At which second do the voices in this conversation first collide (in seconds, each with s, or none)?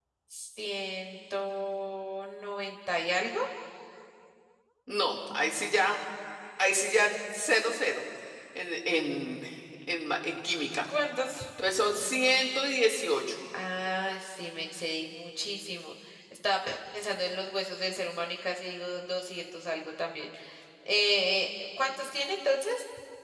none